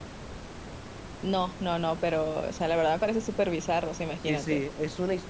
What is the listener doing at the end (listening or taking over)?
taking over